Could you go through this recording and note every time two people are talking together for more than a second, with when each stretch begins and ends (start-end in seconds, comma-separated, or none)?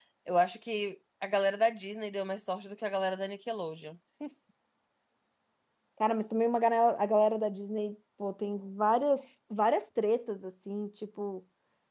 none